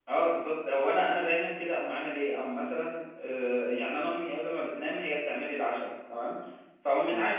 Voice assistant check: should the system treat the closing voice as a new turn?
No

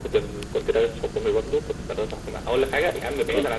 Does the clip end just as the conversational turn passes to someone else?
No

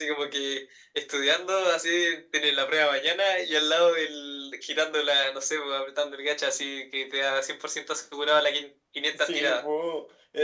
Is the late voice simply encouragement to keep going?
No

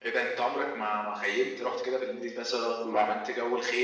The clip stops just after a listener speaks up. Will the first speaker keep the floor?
Yes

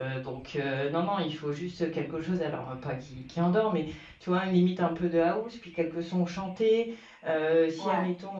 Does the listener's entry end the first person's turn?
No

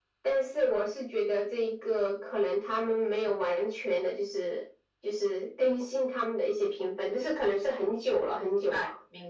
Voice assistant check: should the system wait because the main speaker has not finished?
No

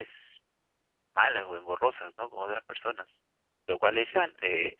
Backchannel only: Yes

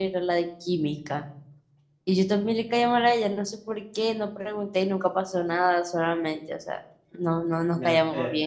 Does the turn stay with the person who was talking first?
No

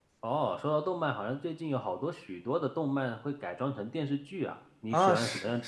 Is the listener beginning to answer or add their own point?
Yes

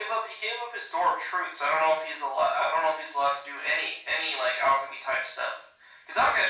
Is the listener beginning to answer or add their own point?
No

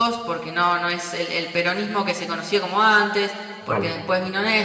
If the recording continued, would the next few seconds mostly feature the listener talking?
No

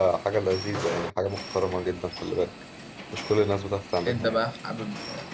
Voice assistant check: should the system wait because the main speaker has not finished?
No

